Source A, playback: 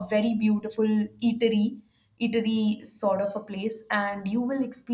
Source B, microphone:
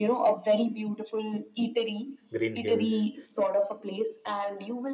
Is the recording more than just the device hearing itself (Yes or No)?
Yes